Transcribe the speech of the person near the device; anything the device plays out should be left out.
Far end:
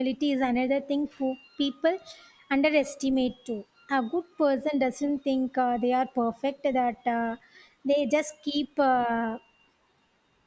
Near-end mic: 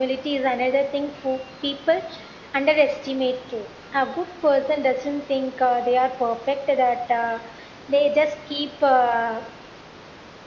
none

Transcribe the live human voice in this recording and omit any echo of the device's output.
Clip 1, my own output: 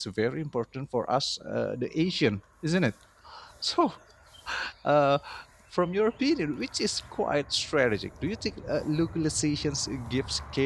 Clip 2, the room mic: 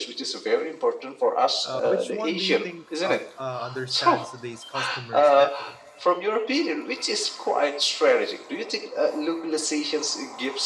Uh, which one do you think up, uh, understands today's customers better?

